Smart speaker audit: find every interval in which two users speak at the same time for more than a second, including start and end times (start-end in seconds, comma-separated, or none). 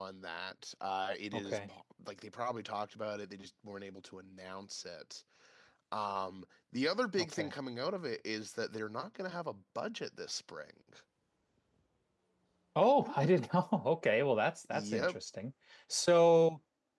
none